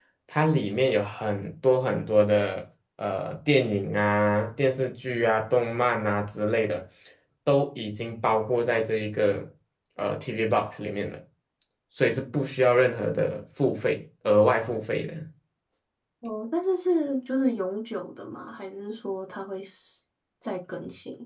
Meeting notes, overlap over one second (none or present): none